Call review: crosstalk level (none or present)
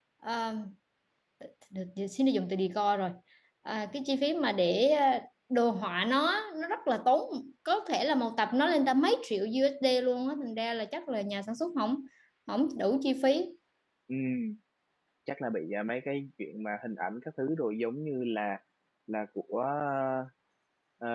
none